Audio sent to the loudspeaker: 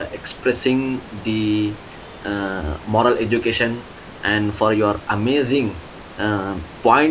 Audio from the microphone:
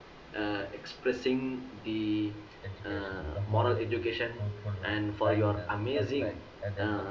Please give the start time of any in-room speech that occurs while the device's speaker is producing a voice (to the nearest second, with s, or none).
3 s